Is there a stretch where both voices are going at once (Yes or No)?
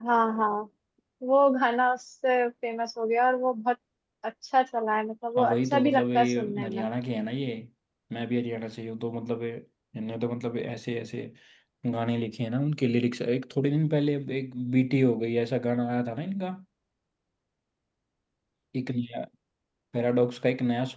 Yes